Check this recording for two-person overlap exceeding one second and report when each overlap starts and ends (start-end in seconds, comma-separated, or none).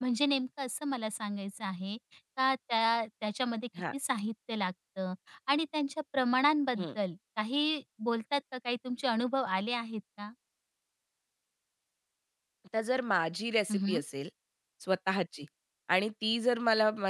none